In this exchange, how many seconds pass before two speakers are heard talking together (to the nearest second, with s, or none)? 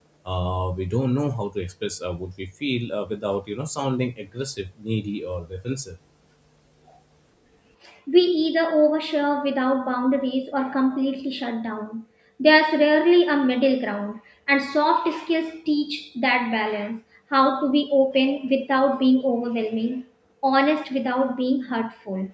none